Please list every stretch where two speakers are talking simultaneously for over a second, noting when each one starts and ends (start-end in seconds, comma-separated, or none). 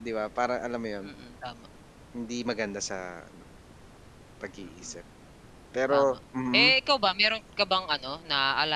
none